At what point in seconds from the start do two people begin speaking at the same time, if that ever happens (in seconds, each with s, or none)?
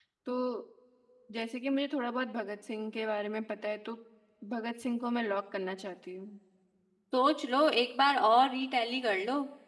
none